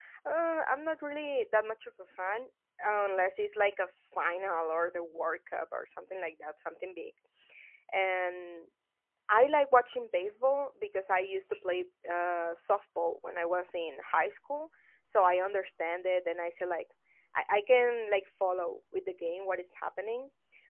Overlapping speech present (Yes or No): No